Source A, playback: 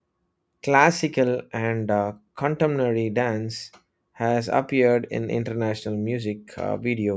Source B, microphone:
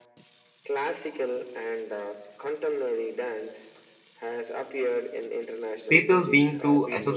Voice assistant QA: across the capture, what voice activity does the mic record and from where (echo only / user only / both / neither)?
both